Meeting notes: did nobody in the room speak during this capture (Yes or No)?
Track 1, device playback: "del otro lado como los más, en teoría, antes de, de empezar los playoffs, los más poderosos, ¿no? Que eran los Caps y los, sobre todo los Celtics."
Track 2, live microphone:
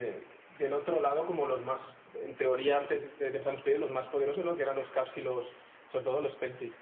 Yes